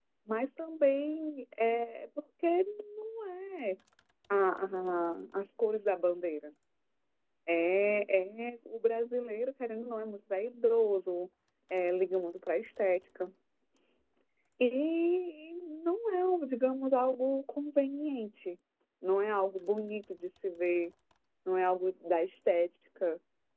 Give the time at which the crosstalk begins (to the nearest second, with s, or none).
none